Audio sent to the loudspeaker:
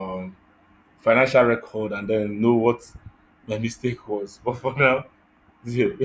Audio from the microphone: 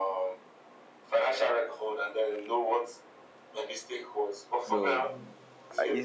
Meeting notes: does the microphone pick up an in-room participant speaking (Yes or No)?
Yes